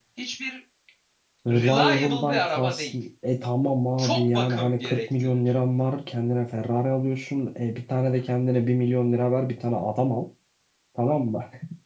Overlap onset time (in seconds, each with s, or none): 1.5 s